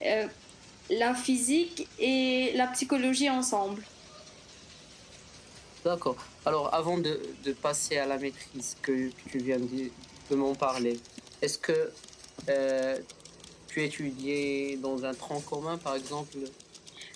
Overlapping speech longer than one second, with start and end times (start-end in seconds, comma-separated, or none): none